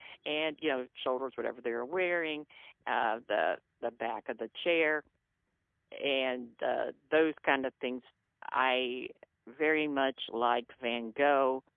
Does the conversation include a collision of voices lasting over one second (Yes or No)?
No